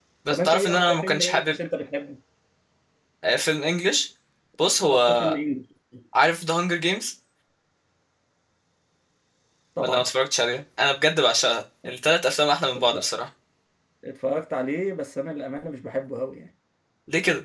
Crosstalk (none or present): present